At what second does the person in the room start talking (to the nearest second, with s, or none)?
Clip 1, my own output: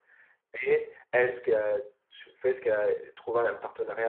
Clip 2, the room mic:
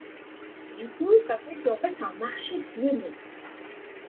1 s